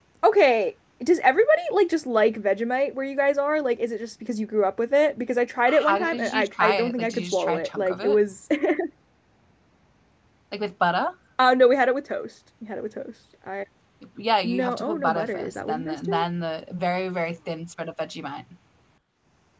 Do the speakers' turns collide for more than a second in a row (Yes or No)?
Yes